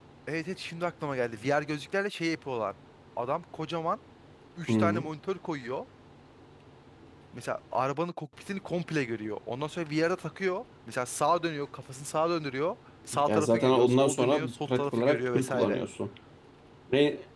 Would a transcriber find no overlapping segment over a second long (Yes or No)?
No